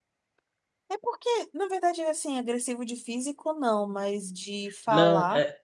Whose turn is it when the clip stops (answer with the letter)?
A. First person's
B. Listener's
B